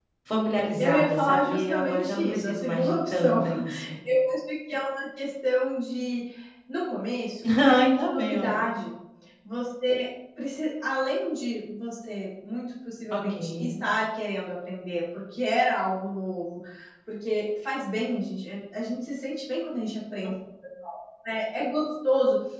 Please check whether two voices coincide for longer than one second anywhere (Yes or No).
Yes